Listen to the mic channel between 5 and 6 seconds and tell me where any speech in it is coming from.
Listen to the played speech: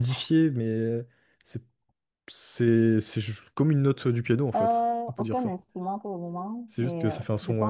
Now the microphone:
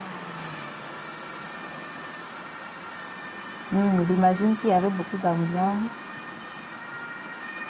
user only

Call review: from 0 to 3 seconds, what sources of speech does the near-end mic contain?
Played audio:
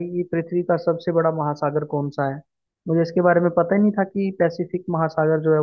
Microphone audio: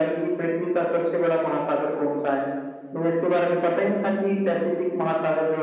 echo only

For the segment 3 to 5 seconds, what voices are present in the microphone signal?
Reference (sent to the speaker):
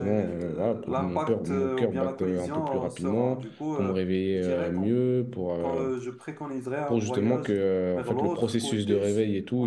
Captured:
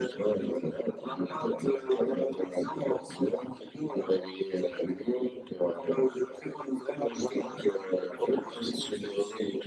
echo only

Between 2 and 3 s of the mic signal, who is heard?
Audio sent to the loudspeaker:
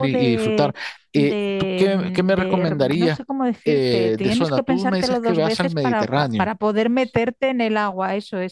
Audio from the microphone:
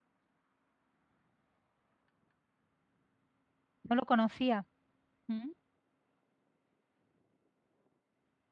neither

